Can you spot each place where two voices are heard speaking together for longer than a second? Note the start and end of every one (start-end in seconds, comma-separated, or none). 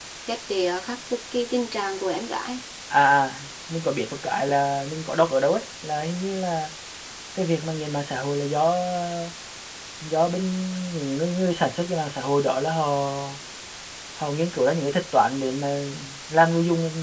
none